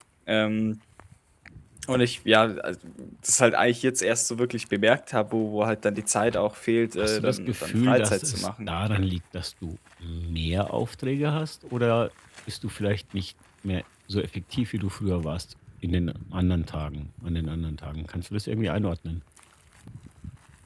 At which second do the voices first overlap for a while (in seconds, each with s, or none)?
7.0 s